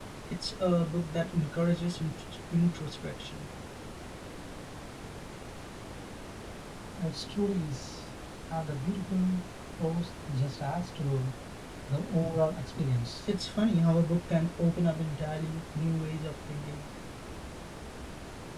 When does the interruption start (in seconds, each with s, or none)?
none